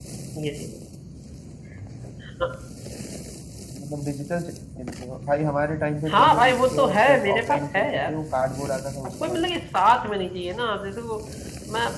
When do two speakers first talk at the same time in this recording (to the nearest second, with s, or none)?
6 s